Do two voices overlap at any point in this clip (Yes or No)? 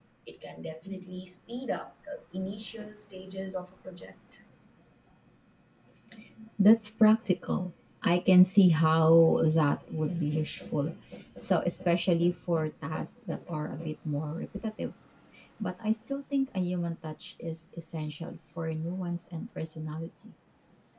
No